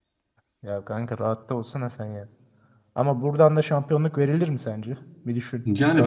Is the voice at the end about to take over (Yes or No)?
Yes